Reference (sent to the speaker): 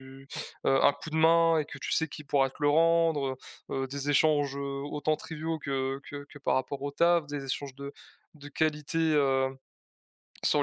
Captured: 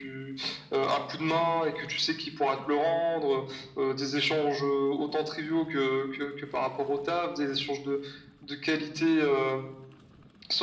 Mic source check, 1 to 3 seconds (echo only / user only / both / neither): echo only